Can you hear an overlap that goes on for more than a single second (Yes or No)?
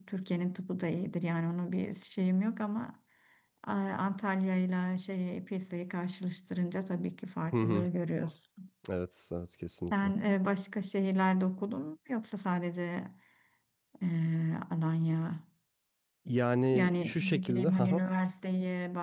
Yes